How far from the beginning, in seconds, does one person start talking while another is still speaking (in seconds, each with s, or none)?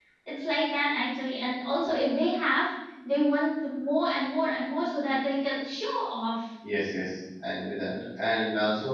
none